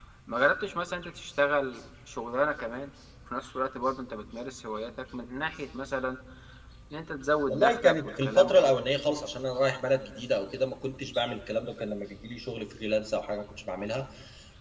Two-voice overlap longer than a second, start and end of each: 7.5-8.8

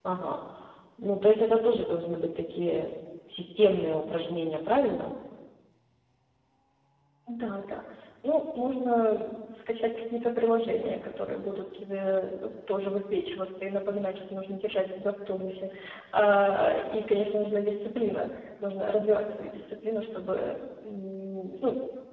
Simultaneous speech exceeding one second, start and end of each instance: none

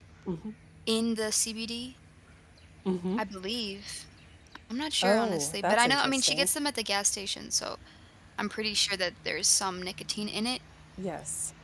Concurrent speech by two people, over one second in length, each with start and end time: 5.0-6.5

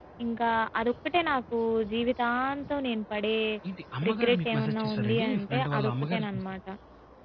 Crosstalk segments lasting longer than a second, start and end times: 4.1-6.4

